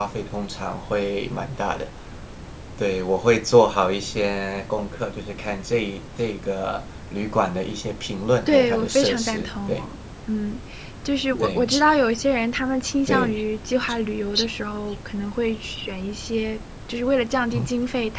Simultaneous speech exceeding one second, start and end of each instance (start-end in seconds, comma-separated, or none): 8.5-9.7